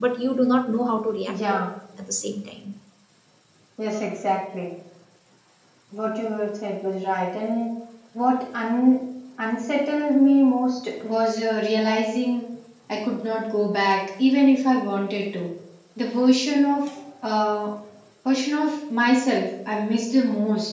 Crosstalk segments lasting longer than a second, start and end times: none

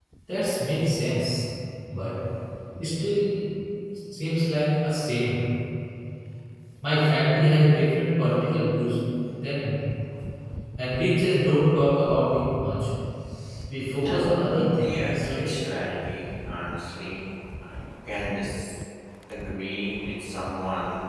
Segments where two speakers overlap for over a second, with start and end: 13.9-15.5

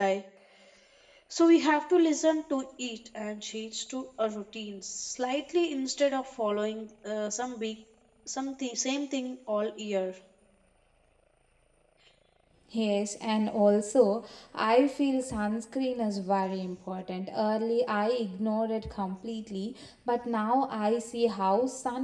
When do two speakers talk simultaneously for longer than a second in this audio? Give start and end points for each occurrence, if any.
none

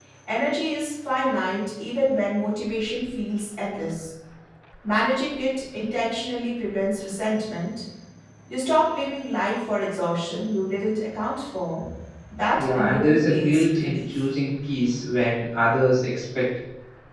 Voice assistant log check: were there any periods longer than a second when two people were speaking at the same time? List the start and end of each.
12.5-14.2

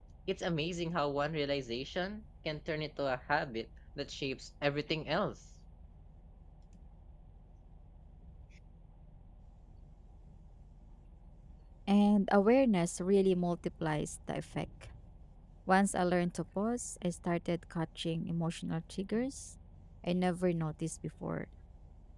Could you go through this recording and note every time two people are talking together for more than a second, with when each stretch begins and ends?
none

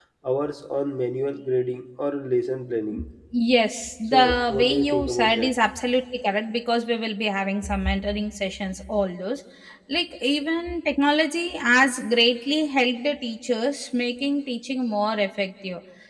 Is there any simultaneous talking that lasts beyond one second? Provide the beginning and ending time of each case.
4.1-5.5

